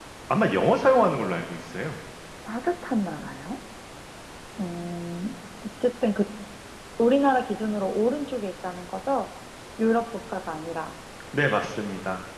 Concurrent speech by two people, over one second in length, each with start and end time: none

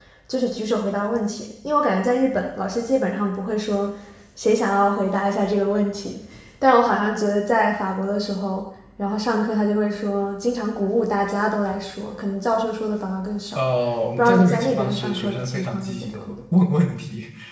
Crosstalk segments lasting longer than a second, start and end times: 14.2-16.4

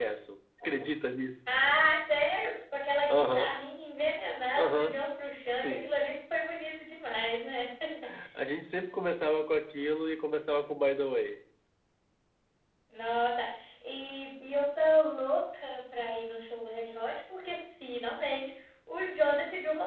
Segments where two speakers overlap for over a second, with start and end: none

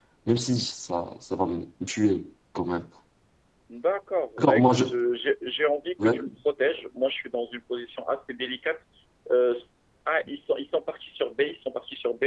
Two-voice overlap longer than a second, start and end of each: none

